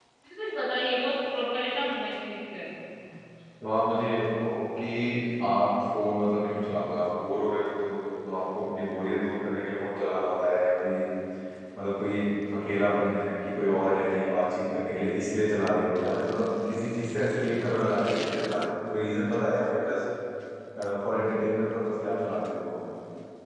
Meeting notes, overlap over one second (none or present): none